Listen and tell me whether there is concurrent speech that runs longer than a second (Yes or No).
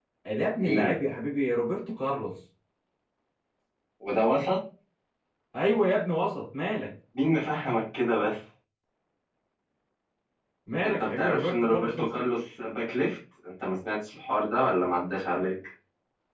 Yes